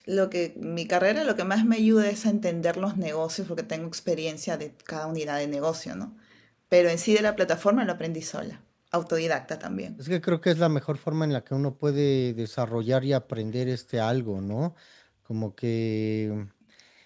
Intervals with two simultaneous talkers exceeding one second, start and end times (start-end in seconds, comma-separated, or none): none